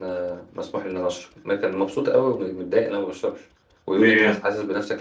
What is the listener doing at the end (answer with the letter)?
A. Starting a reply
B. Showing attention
B